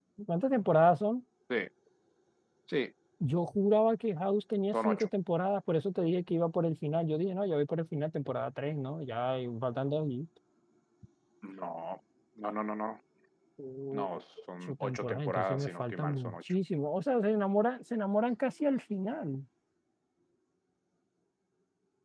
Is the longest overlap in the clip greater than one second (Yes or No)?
Yes